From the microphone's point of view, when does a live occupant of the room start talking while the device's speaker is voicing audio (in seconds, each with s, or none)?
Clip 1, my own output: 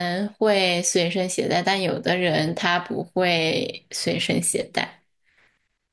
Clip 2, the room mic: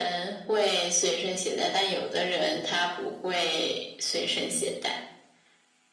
none